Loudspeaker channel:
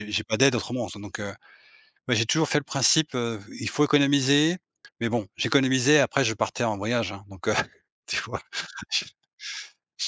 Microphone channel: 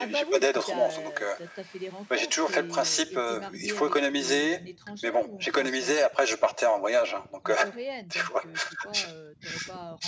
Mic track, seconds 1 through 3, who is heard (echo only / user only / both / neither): both